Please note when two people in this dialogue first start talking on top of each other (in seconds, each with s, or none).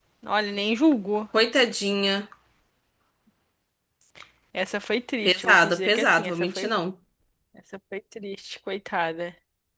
5.2 s